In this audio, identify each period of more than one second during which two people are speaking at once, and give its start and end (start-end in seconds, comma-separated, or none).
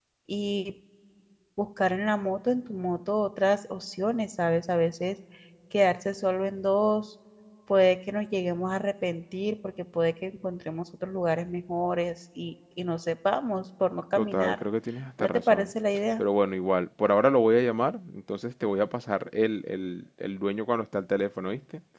none